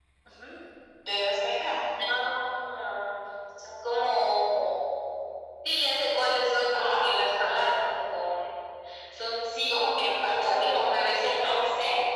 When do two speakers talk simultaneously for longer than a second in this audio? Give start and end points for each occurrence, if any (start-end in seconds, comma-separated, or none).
9.7-11.6